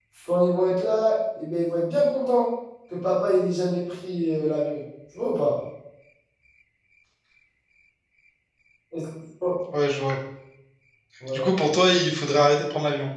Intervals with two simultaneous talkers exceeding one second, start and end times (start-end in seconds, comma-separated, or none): none